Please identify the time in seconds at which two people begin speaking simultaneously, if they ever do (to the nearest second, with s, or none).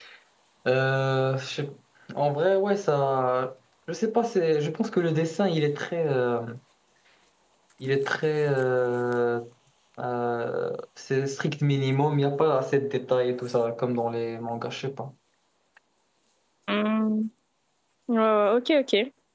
none